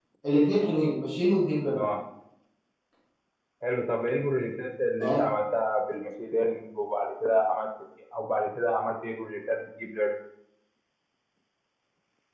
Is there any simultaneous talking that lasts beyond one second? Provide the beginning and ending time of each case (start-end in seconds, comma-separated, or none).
none